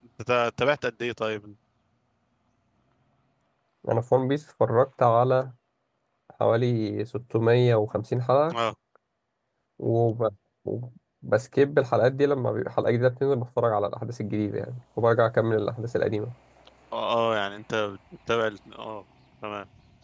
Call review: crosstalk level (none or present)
none